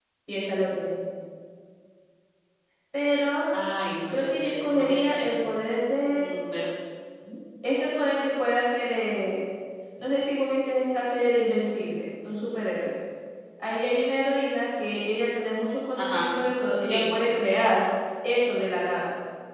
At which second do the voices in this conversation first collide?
4.1 s

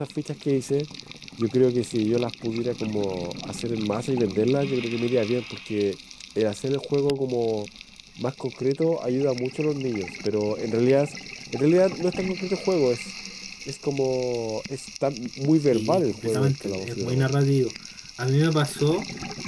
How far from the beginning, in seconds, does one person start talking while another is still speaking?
15.7 s

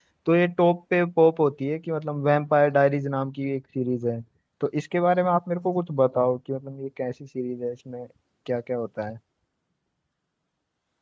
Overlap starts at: none

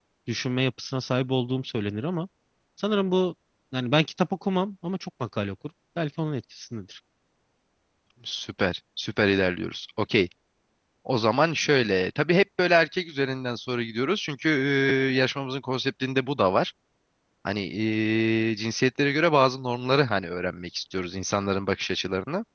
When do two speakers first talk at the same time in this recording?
none

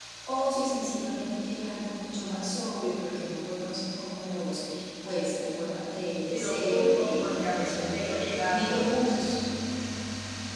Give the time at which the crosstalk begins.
6.3 s

